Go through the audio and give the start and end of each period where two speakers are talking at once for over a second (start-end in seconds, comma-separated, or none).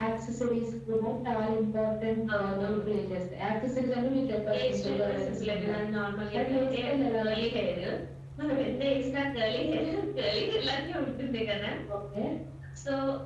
4.5-5.8